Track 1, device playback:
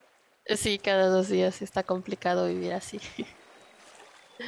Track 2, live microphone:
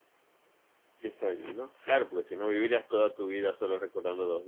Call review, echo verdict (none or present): none